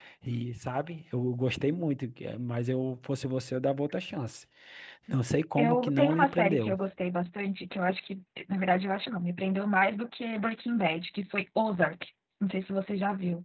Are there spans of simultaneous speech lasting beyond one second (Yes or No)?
Yes